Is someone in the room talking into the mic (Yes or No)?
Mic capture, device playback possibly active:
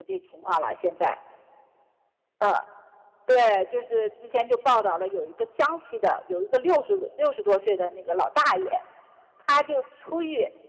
Yes